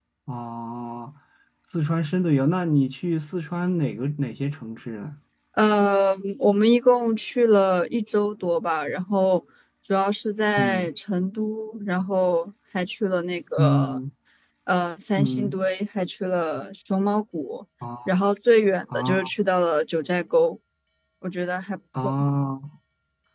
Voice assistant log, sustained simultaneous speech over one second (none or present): none